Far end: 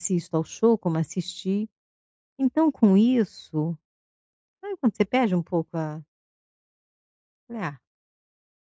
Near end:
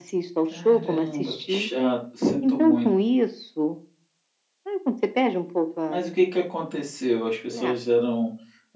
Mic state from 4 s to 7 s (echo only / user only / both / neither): both